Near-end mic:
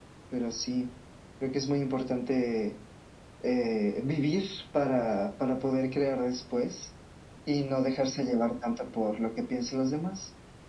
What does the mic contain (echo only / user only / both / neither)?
echo only